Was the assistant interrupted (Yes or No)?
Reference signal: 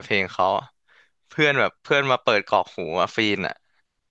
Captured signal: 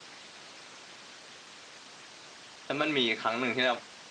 Yes